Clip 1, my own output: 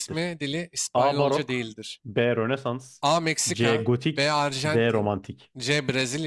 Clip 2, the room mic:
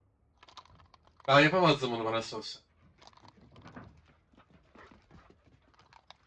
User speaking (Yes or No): Yes